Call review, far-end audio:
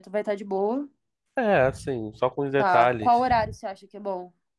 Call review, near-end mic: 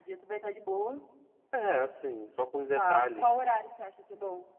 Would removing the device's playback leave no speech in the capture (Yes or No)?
Yes